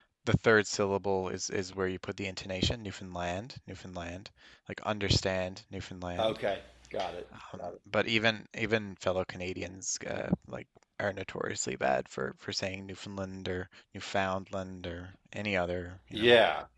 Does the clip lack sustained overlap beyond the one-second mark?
Yes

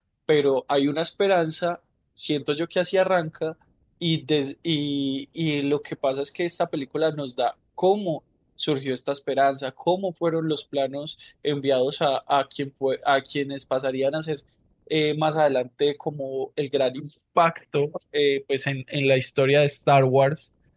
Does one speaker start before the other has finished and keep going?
No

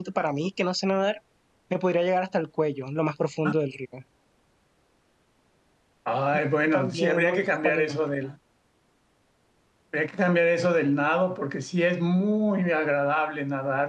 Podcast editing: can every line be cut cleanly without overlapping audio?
No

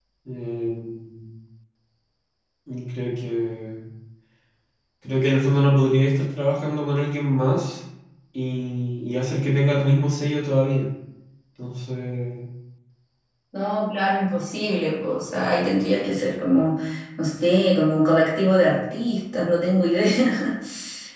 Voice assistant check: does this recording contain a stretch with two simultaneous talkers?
No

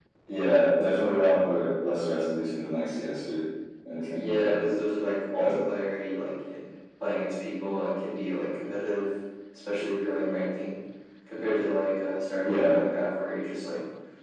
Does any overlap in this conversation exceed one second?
No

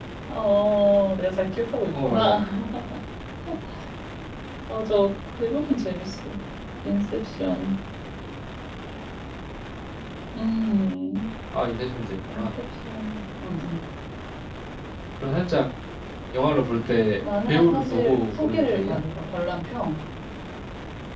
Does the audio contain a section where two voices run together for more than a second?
Yes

